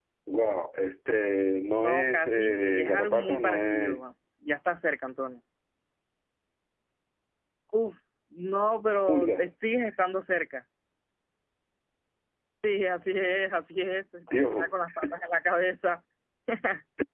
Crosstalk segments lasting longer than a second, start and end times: 1.8-4.0

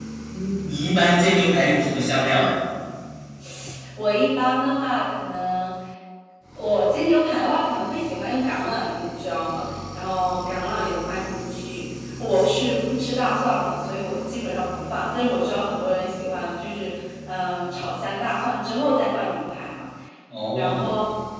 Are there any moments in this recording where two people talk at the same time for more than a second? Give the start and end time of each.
none

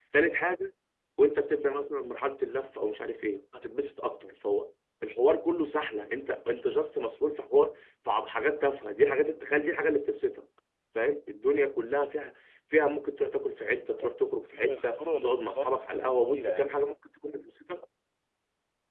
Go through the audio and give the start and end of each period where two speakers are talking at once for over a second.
14.5-16.7

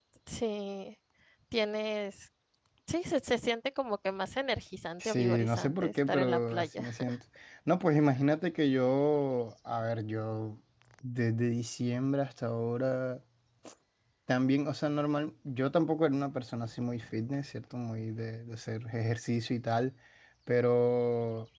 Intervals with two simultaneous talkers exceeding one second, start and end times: 5.0-6.9

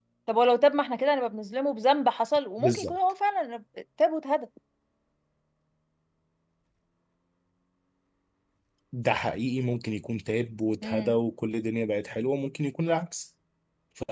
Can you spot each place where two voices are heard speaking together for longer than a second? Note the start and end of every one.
none

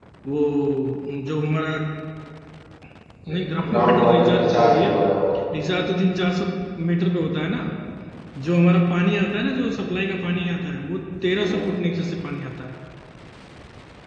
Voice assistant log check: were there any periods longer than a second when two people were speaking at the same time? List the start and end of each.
3.3-4.9

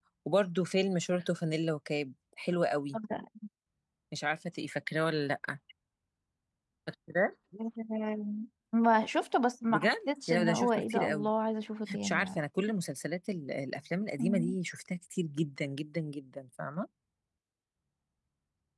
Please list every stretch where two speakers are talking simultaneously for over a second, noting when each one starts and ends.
9.7-11.3

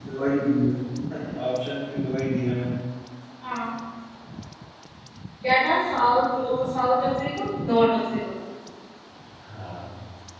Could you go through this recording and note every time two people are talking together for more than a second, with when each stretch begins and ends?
none

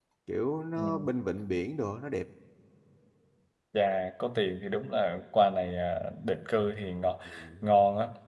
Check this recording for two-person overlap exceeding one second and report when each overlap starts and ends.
none

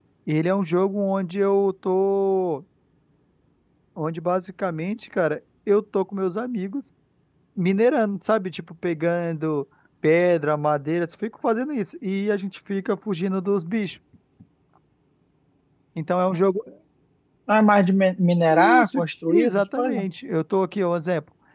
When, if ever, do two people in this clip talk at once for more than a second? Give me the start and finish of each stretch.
18.5-20.0

